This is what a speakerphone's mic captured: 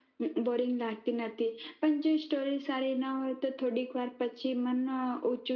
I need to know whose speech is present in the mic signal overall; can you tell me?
echo only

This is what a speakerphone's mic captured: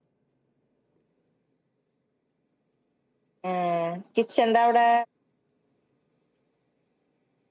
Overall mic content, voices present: user only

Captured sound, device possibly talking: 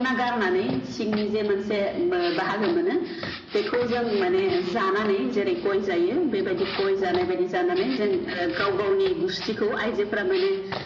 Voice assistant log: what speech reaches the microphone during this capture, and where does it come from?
echo only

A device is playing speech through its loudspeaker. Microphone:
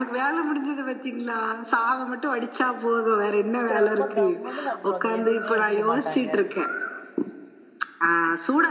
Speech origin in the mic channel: both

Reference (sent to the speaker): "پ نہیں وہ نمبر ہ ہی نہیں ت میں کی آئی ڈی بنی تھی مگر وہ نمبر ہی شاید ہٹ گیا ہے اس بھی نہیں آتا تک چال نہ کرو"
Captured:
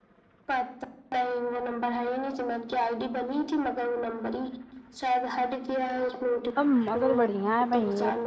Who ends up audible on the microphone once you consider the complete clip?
both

